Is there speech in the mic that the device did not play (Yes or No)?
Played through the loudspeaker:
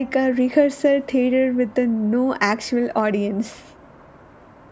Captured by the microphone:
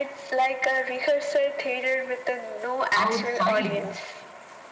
Yes